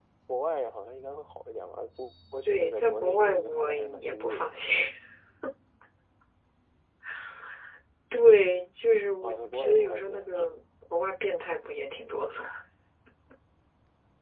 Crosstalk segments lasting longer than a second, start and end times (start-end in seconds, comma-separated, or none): 2.5-4.6, 9.2-10.5